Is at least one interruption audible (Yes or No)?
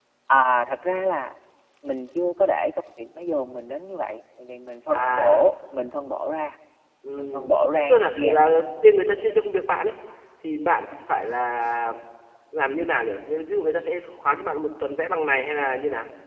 Yes